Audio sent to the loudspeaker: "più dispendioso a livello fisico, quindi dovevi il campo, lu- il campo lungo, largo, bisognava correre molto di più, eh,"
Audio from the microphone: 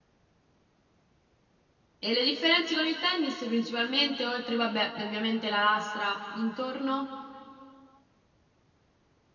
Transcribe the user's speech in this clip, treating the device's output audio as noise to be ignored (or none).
E le differenze con il tennis principalmente, oltre, vabbè, ovviamente la lastra intorno?